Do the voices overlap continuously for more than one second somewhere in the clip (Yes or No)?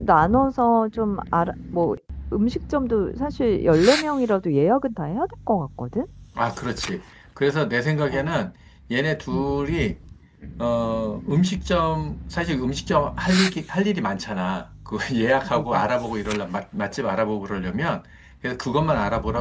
No